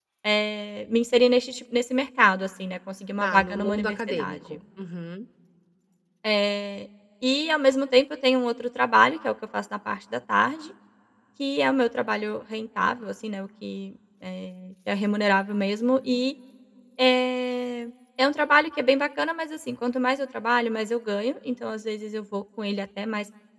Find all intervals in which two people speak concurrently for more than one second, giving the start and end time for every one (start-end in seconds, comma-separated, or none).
3.2-4.6